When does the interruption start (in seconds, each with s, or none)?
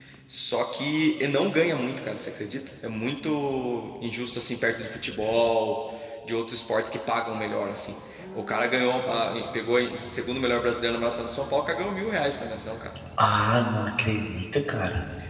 none